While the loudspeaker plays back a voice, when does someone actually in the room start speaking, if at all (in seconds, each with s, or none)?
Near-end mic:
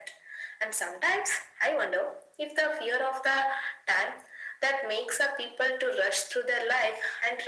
none